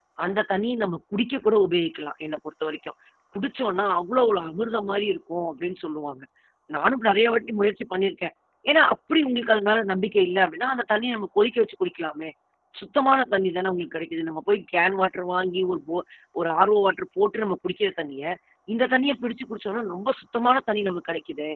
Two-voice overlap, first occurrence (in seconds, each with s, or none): none